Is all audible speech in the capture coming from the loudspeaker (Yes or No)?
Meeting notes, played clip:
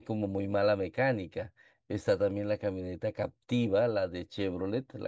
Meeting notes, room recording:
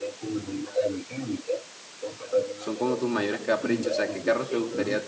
No